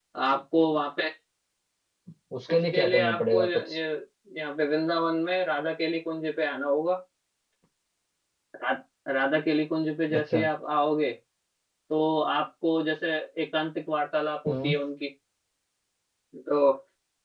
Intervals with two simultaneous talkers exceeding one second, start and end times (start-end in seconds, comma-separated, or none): 2.5-3.8